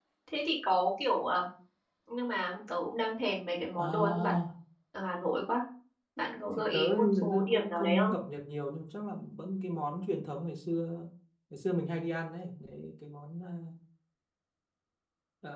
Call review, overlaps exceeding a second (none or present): present